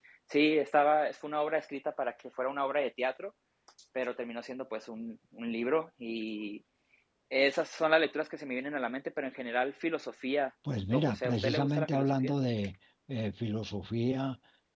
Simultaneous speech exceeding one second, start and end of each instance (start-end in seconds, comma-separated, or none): 10.9-12.3